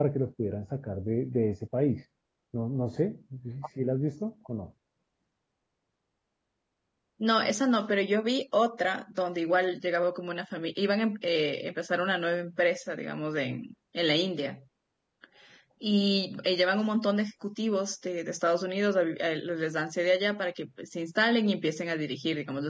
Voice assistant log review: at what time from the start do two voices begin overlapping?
none

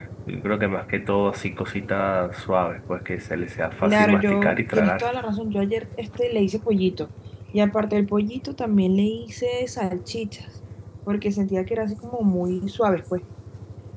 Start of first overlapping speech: 3.8 s

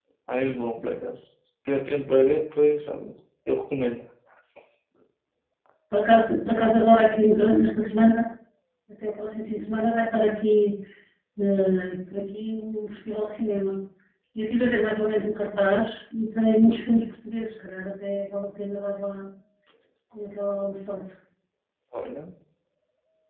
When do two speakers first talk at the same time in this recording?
none

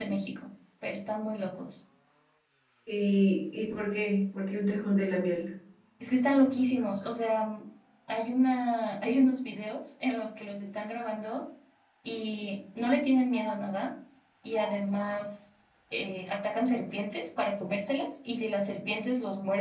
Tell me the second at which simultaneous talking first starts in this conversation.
none

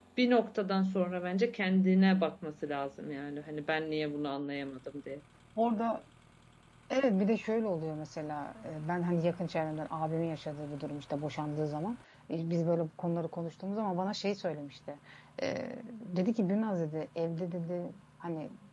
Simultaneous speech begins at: none

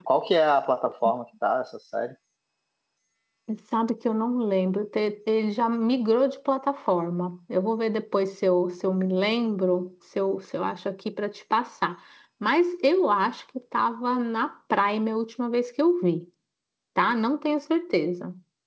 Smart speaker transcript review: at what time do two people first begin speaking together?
none

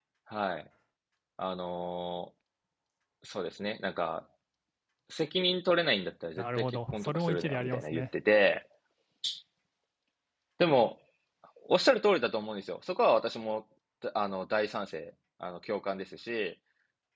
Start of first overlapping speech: 6.4 s

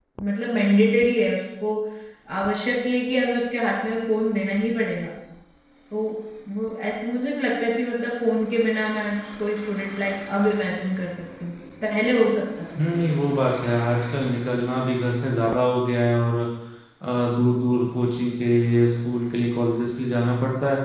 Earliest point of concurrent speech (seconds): none

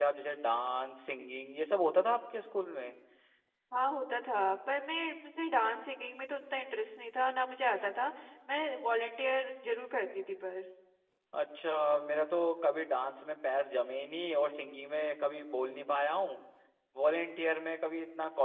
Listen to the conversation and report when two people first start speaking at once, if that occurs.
none

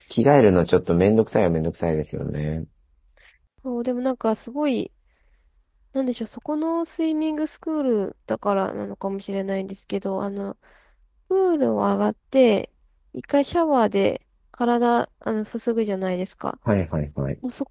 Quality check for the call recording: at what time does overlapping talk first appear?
none

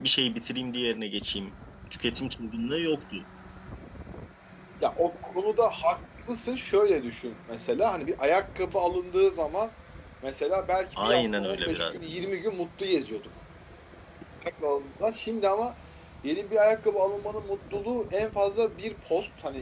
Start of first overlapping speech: 11.0 s

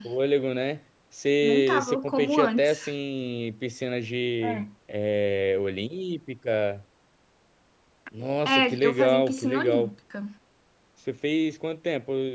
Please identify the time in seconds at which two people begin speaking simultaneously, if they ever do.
1.4 s

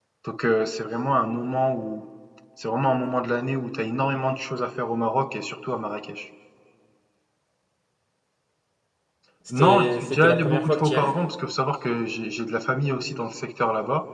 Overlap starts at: 9.5 s

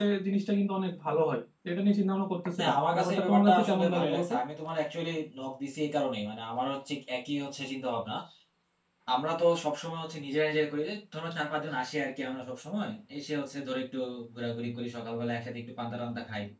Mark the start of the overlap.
2.6 s

